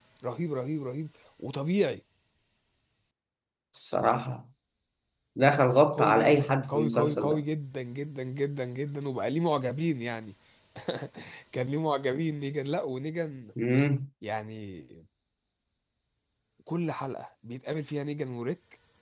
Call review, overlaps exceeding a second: present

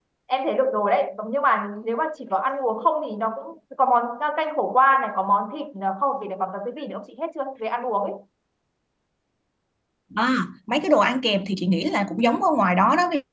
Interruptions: none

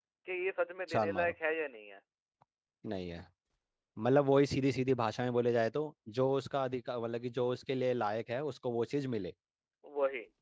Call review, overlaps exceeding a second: none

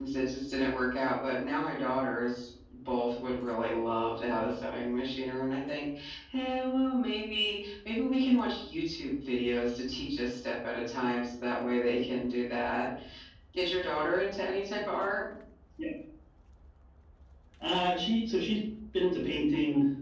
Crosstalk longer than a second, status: none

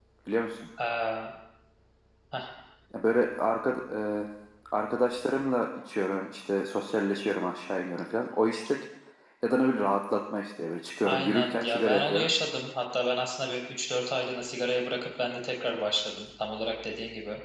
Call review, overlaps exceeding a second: present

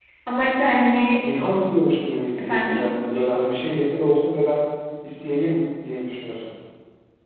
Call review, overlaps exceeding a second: none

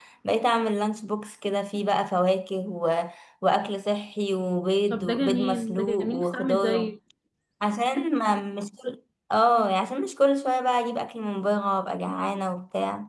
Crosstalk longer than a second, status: present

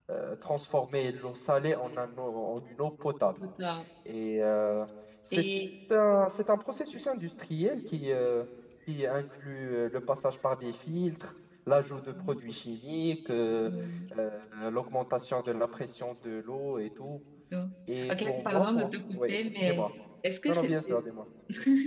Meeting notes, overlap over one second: present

